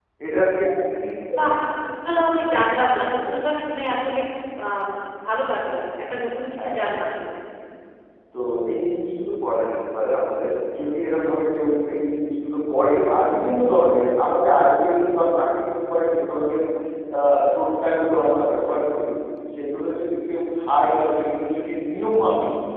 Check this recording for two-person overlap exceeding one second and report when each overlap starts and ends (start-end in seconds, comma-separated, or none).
none